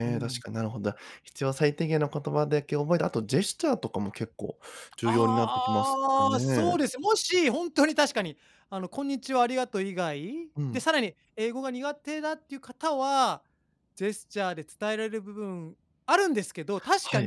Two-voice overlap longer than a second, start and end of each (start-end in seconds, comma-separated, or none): 5.0-6.8